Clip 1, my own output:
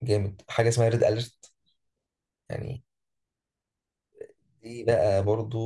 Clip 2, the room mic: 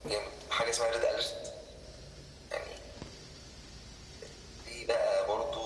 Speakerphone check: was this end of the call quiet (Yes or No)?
Yes